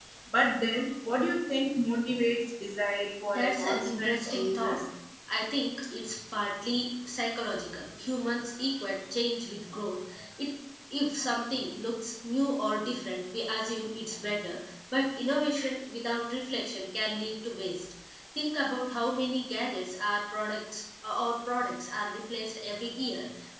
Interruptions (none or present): present